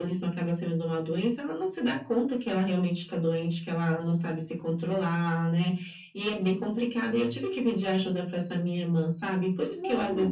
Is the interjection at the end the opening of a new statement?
No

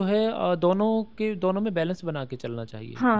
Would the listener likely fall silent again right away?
No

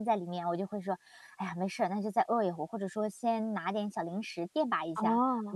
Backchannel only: Yes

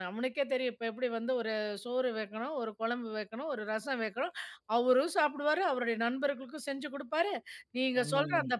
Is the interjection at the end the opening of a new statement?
No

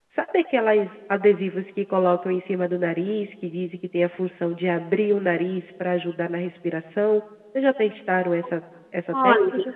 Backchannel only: No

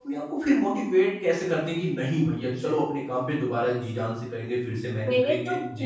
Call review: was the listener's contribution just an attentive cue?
No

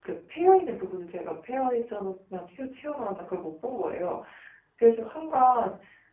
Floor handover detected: No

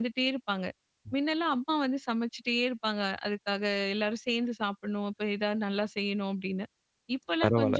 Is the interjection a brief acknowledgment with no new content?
No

